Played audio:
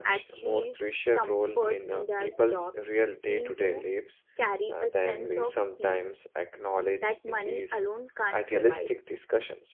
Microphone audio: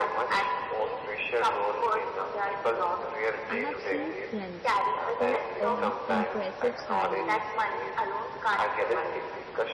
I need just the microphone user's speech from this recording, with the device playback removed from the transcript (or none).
I have seen friends who earn impressive salaries